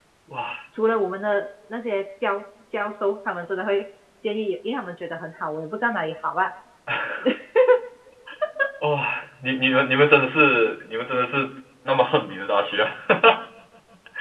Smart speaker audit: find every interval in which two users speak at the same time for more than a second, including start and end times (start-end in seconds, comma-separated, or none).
none